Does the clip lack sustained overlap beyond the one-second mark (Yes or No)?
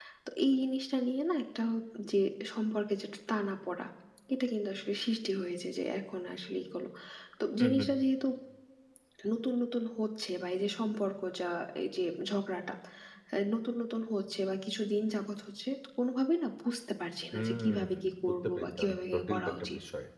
No